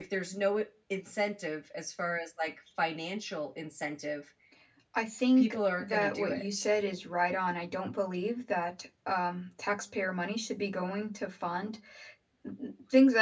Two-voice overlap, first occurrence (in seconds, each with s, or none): 5.4 s